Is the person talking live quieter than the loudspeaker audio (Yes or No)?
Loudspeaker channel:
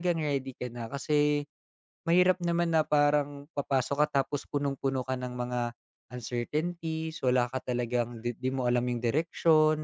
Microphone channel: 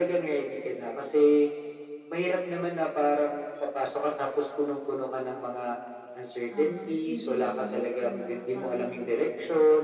Yes